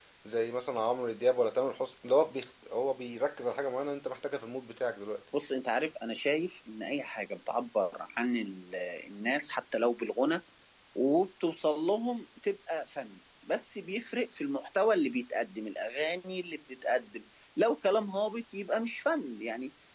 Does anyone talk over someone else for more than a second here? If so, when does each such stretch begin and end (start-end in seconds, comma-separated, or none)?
none